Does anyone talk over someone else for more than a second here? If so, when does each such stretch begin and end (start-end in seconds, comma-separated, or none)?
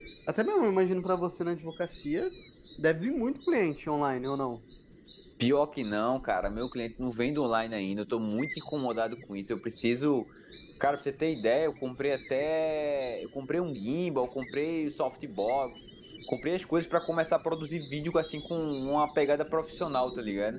none